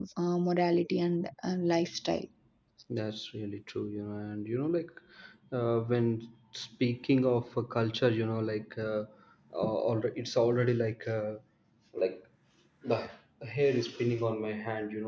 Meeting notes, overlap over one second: none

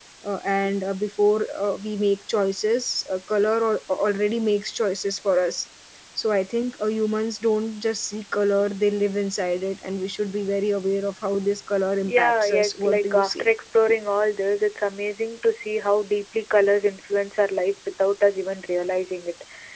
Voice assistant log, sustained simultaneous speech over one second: present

